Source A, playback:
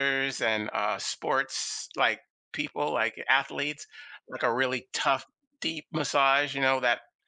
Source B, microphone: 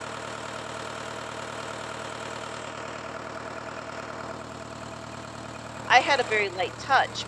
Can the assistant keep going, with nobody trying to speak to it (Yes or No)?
No